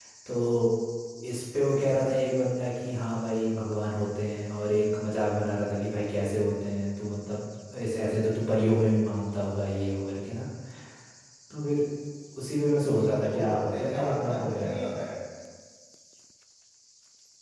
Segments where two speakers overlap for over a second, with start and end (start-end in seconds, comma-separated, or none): 13.0-14.8